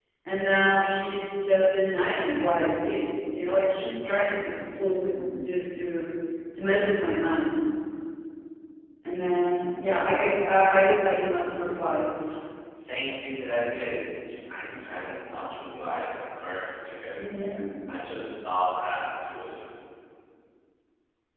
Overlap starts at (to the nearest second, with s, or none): none